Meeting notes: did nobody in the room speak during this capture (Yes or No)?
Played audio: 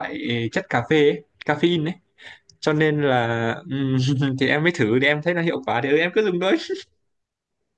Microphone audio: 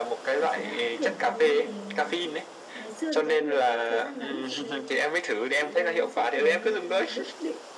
No